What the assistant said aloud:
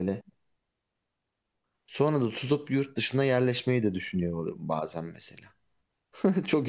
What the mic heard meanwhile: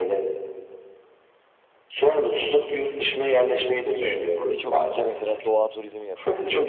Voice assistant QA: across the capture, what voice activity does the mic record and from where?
both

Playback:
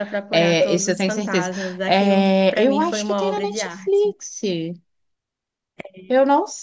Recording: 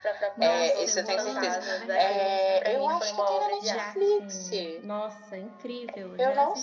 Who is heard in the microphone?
both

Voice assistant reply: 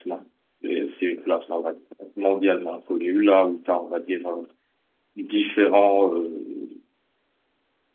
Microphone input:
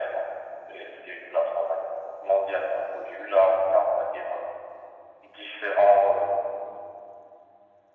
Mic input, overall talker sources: echo only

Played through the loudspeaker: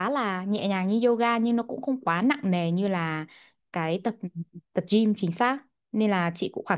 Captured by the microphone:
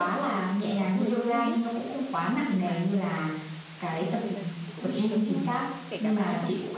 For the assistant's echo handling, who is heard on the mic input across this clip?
both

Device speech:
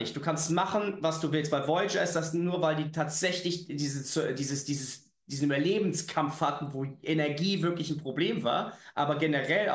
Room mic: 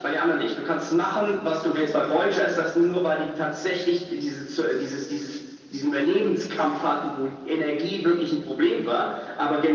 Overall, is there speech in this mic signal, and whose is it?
echo only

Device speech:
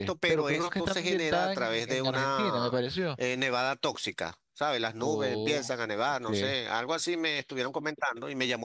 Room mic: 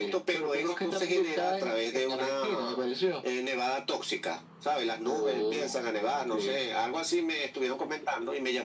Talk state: echo only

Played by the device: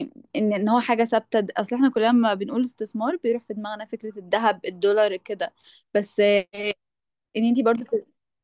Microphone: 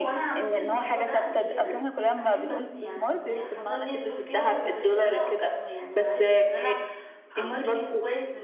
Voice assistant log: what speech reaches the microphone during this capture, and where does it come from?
both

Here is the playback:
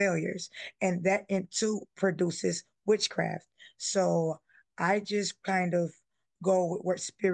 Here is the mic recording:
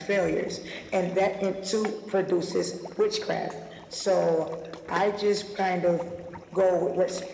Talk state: echo only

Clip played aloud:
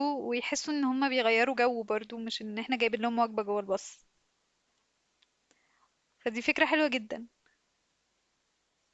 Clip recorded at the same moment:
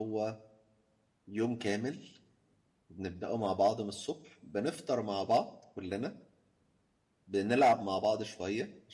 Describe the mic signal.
user only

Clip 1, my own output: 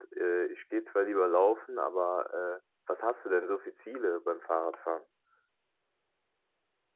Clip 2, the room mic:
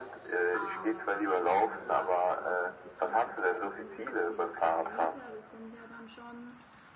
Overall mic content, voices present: both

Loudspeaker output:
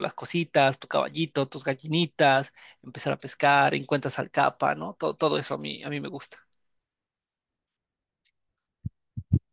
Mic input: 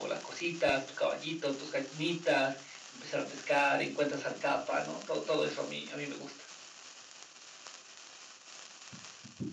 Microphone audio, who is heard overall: echo only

